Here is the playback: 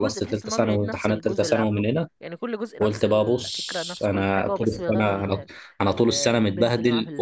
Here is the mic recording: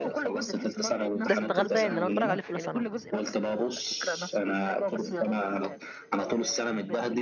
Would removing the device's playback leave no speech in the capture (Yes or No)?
No